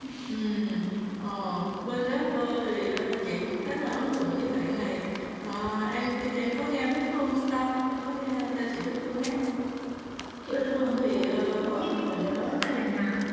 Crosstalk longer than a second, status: present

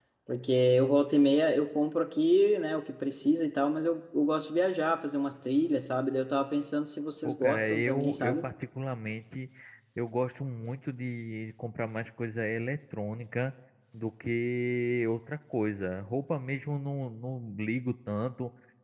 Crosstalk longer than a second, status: present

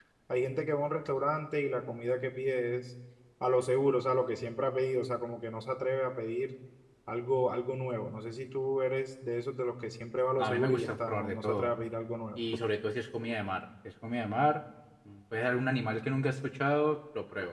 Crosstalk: present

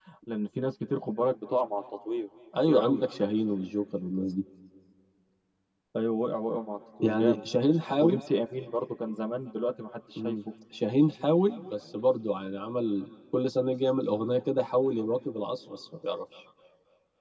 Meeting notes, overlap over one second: none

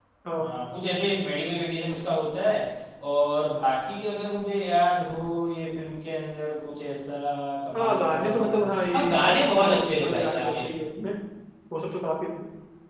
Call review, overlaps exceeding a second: present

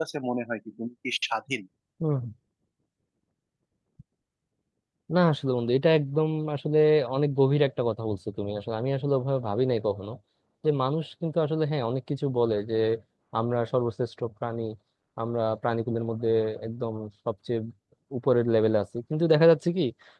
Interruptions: none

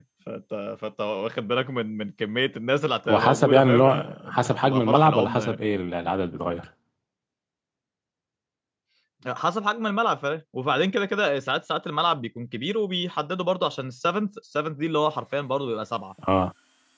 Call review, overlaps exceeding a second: present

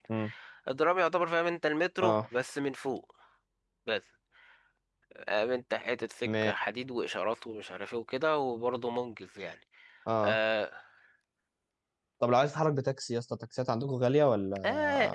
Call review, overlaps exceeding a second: none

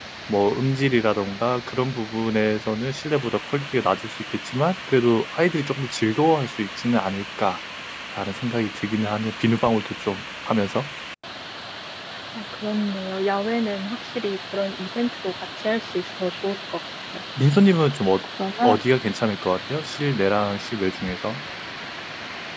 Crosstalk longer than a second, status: none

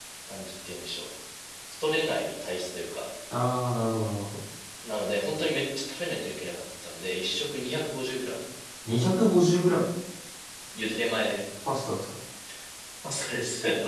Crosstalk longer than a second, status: none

